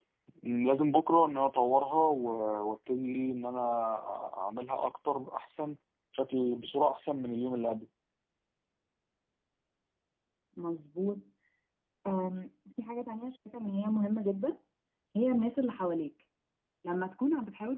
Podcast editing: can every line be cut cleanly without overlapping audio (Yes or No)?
Yes